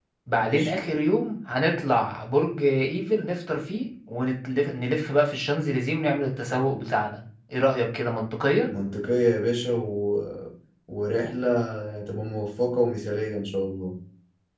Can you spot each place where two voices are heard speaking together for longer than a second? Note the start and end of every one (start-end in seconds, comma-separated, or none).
none